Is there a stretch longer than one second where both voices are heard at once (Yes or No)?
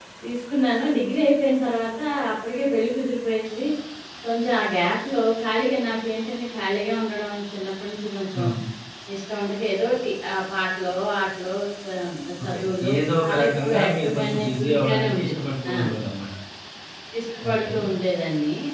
Yes